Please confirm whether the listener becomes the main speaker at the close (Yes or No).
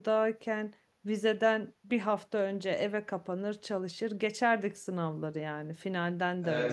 No